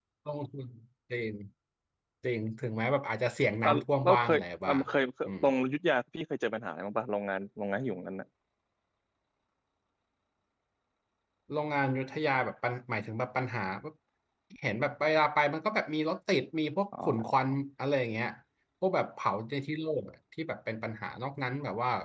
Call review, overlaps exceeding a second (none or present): present